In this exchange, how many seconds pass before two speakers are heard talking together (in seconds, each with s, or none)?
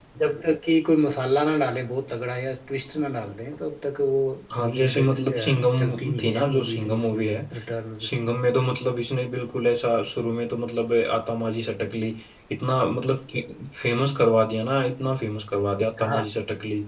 4.6 s